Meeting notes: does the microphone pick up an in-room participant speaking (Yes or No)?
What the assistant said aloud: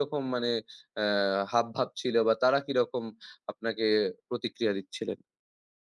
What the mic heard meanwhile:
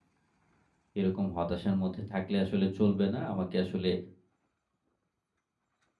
Yes